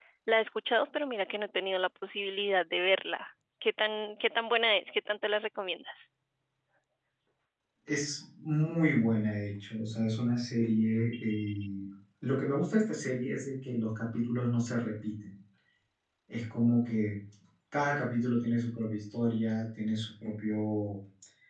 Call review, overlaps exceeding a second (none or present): none